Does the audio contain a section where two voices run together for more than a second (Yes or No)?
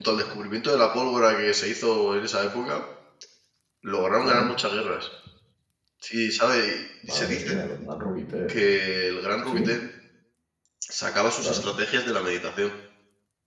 No